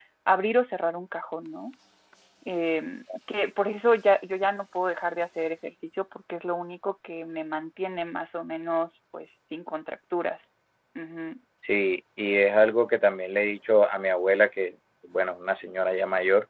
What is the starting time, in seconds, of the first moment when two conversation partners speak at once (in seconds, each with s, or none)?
none